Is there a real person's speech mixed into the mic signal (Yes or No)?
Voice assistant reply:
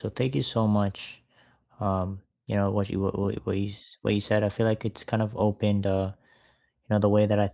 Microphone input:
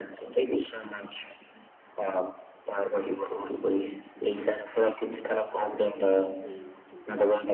Yes